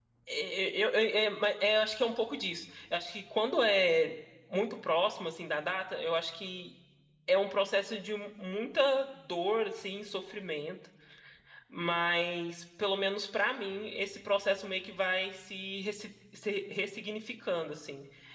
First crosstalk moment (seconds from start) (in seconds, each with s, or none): none